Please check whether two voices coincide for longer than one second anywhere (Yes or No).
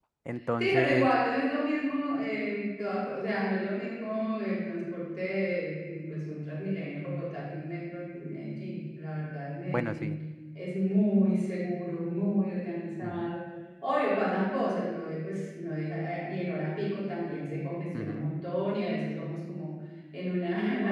No